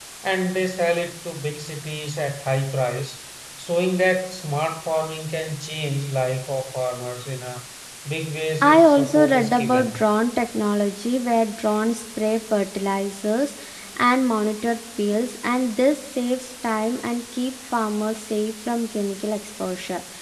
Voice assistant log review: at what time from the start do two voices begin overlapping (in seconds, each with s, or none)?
8.6 s